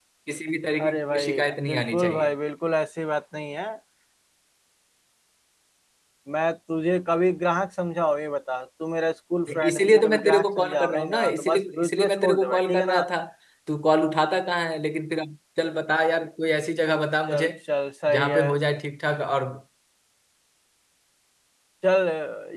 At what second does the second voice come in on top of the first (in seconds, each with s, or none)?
0.8 s